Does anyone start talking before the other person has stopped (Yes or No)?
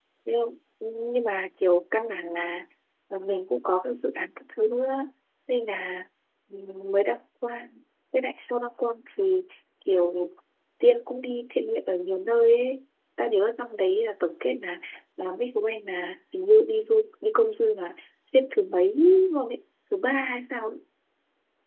No